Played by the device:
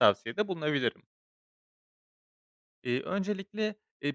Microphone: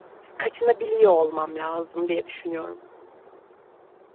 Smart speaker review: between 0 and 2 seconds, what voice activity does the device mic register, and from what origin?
user only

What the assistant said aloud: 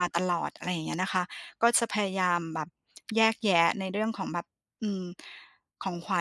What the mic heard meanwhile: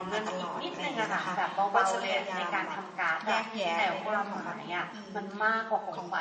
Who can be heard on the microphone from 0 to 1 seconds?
both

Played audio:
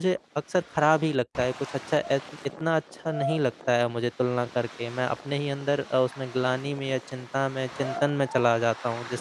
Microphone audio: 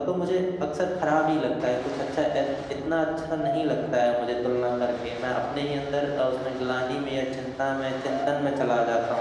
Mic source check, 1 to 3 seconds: echo only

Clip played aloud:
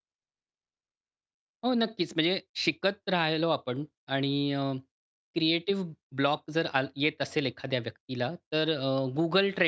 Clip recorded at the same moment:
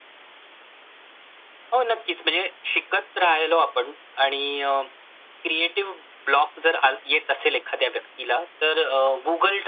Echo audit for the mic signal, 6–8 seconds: echo only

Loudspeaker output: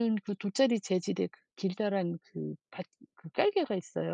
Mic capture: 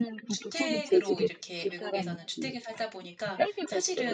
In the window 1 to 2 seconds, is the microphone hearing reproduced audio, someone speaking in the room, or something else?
both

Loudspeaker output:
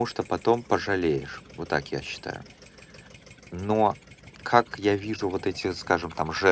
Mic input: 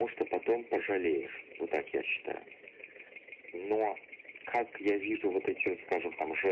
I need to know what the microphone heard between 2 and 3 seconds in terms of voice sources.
echo only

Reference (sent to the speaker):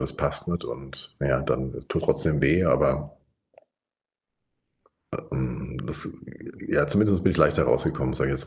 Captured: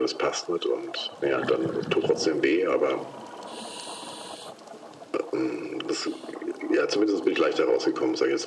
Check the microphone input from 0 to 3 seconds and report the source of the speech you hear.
echo only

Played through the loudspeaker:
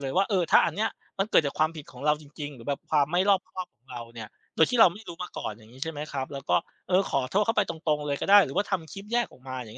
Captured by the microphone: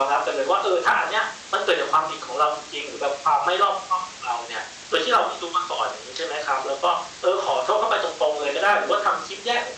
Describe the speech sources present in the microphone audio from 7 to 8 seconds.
echo only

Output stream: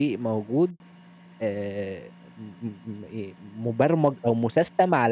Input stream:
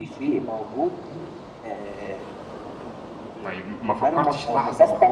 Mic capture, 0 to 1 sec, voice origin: echo only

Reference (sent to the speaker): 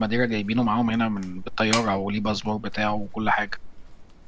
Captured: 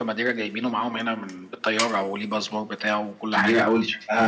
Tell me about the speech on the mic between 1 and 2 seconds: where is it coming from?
echo only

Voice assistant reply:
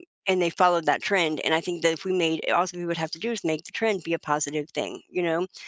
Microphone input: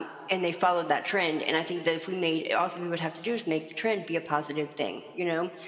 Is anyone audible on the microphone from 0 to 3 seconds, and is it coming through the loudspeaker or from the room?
echo only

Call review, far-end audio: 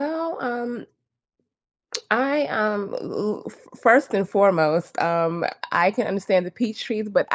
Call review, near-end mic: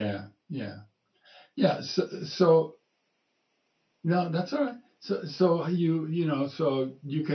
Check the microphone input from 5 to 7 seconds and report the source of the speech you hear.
user only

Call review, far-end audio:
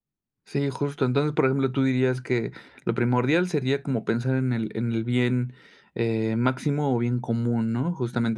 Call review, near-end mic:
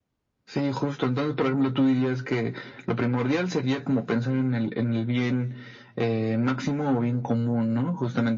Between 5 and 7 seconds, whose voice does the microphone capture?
echo only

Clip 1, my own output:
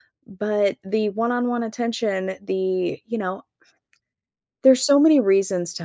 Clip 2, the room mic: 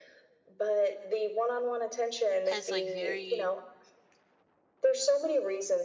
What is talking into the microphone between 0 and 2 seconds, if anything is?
echo only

